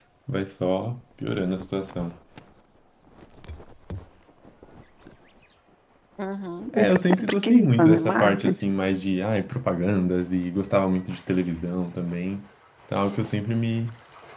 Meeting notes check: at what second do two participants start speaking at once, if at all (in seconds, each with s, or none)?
6.7 s